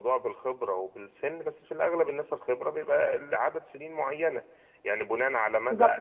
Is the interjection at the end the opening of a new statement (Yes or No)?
Yes